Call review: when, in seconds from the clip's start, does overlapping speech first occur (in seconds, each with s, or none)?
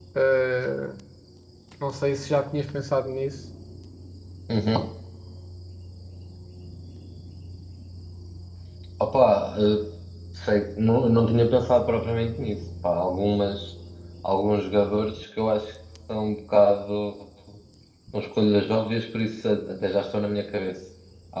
none